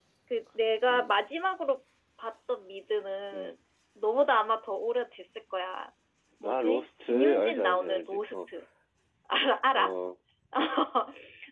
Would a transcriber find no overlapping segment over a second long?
No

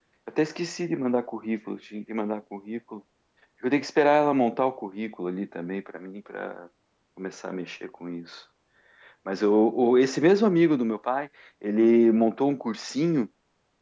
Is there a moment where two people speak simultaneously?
No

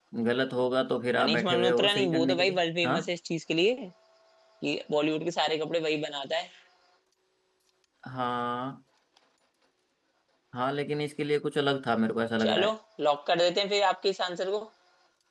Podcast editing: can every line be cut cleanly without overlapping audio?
No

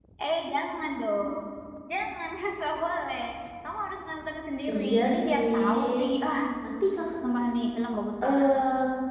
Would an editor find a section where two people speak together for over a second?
Yes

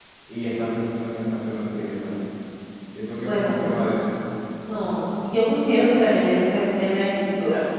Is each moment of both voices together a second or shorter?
Yes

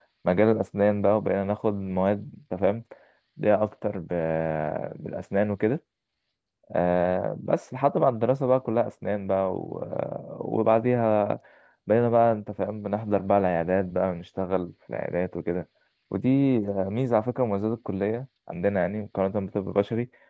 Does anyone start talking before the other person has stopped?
No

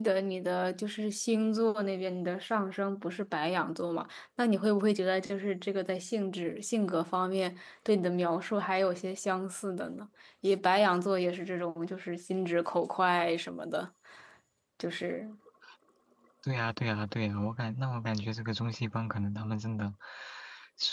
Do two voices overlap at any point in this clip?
No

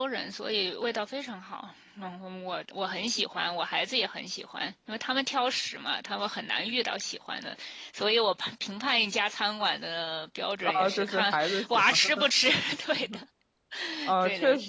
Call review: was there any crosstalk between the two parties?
Yes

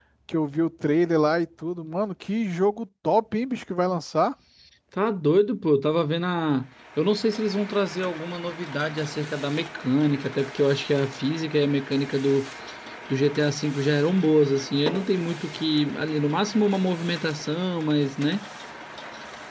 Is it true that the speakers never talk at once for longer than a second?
Yes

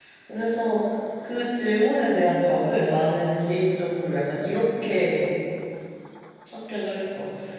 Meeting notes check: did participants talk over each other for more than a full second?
No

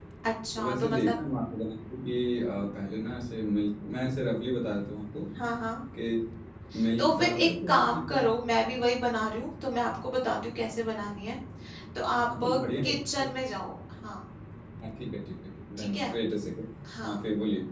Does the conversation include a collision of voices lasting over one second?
Yes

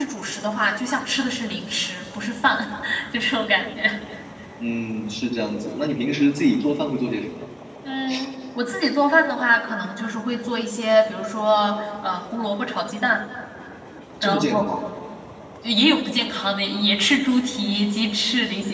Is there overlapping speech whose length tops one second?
No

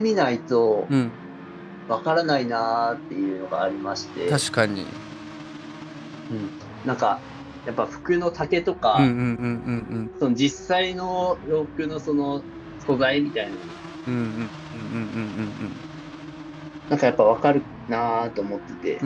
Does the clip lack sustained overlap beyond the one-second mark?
Yes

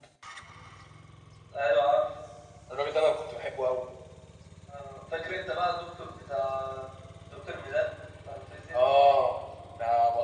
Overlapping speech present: No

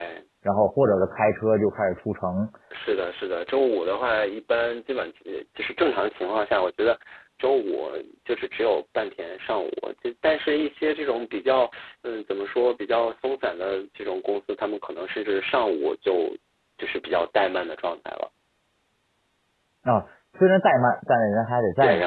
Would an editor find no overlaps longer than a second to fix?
Yes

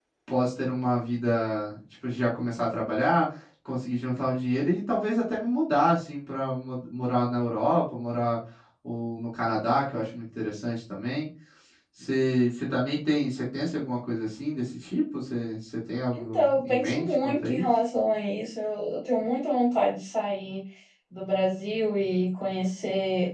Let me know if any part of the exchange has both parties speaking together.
Yes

